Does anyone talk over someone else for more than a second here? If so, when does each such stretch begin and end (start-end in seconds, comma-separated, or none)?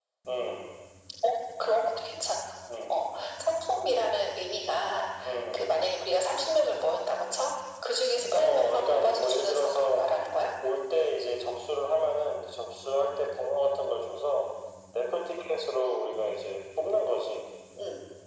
8.4-10.0